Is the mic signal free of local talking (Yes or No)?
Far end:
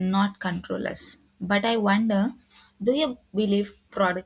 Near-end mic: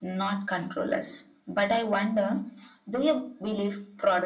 Yes